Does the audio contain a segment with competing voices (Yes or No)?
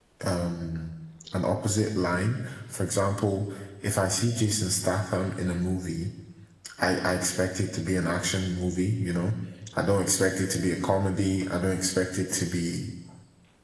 No